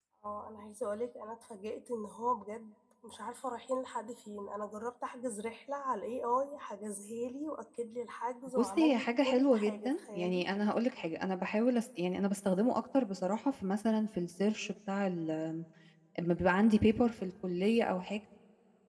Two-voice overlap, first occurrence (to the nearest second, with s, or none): 9 s